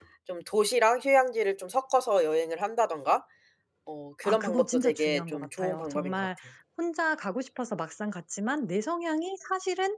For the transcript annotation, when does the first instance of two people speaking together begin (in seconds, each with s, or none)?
4.2 s